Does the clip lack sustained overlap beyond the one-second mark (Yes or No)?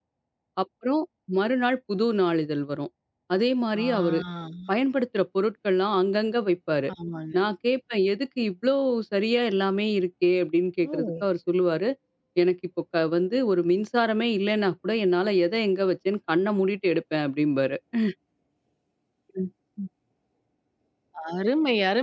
Yes